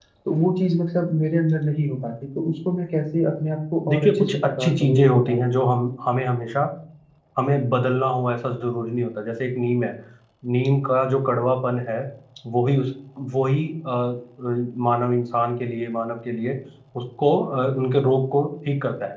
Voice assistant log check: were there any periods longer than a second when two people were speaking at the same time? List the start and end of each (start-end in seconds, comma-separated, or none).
3.9-5.4